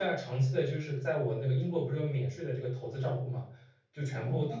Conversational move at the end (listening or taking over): listening